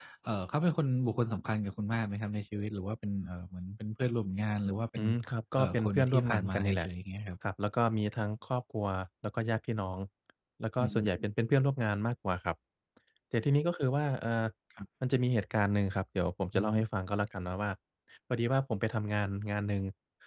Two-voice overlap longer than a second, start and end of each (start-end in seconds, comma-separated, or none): 5.6-6.9